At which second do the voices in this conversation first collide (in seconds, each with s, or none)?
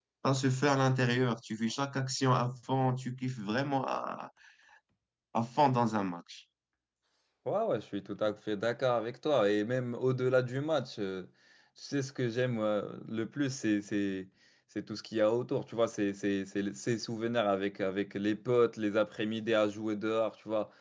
none